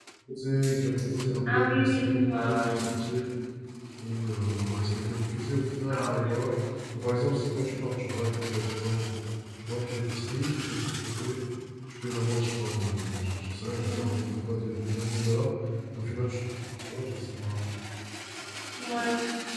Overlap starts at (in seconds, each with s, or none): 1.5 s